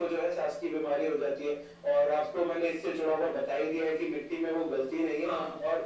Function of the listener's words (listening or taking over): listening